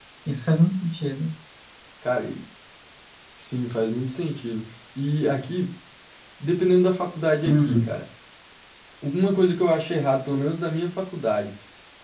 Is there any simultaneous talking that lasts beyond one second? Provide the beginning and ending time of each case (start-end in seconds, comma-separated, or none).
none